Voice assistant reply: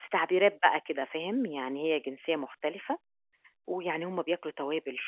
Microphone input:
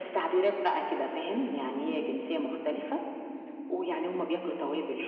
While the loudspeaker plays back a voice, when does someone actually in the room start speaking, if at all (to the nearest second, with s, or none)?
none